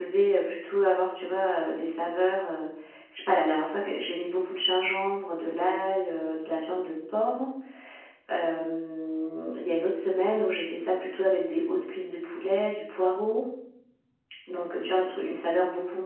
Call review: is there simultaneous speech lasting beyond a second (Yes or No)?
No